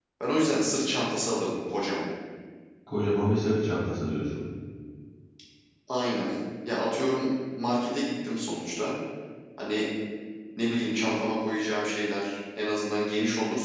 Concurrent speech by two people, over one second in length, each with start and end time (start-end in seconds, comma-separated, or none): none